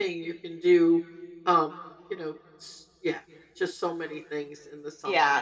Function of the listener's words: taking over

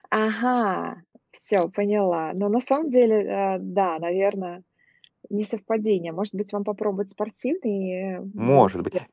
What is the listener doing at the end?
taking over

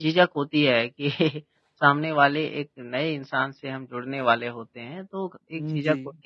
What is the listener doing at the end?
listening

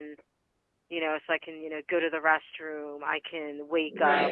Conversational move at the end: listening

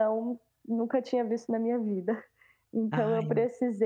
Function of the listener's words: listening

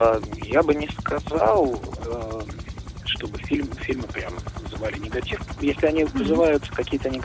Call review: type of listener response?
listening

